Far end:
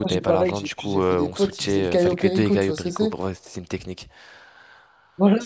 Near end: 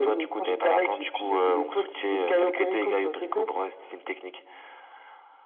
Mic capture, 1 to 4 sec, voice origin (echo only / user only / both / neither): echo only